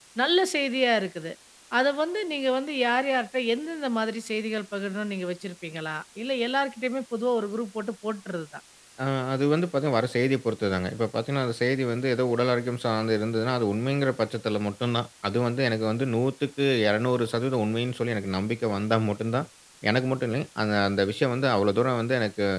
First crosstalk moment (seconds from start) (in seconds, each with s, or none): none